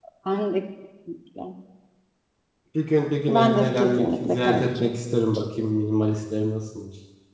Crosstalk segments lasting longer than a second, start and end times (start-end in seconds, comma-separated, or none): 3.3-4.9